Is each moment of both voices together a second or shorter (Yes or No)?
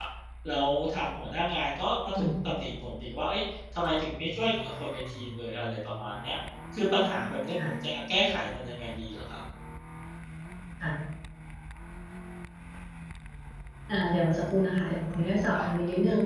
Yes